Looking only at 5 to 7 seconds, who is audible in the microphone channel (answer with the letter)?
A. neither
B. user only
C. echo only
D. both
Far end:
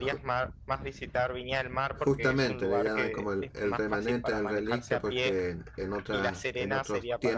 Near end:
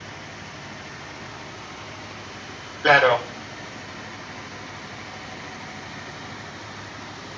A